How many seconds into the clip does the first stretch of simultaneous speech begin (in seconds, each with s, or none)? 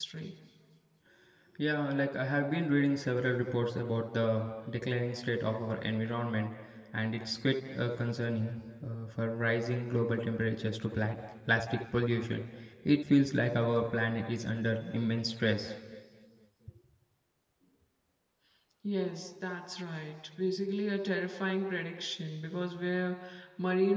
none